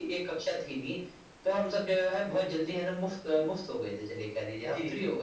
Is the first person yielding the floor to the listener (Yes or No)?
No